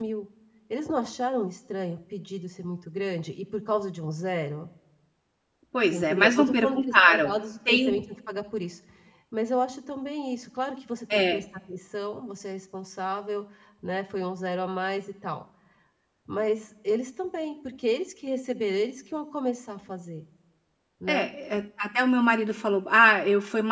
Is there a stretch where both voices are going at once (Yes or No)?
Yes